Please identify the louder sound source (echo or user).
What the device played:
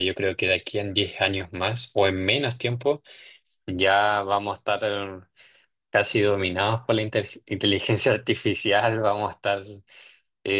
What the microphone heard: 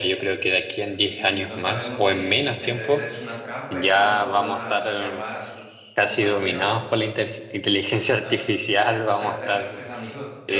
echo